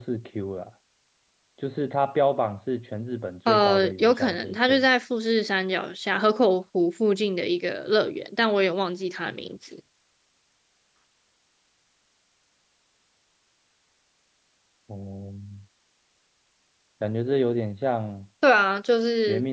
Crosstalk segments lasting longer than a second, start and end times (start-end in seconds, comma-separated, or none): 3.5-4.8